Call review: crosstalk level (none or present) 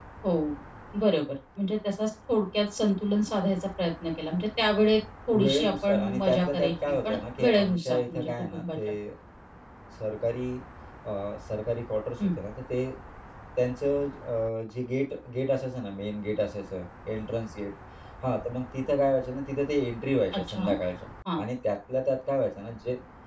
present